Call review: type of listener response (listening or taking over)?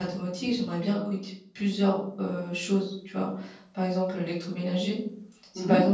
listening